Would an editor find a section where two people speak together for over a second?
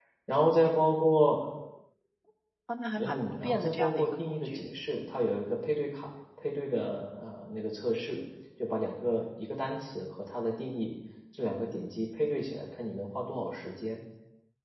Yes, from 3.0 s

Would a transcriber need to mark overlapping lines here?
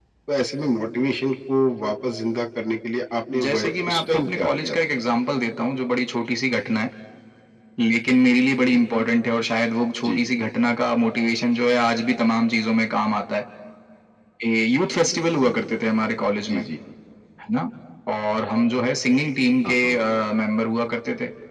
Yes, from 3.4 s

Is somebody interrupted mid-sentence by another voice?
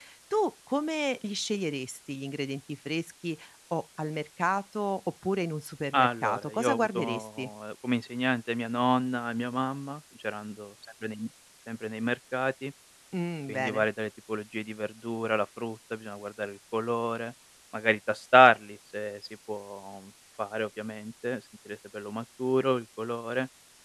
Yes, from 5.9 s

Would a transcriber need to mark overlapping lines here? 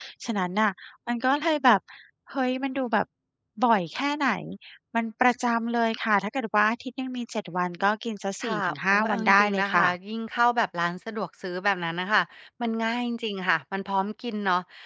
Yes, from 8.4 s

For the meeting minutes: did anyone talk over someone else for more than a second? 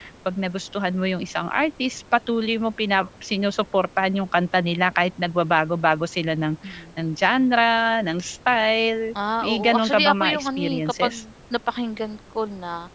Yes, from 9.4 s

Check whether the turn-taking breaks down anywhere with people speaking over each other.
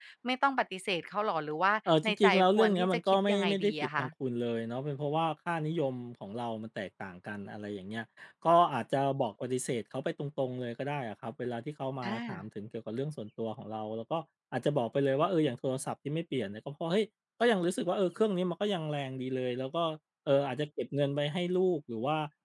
Yes, from 2.0 s

